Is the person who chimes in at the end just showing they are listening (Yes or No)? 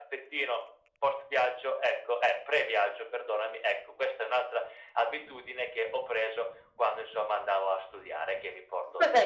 No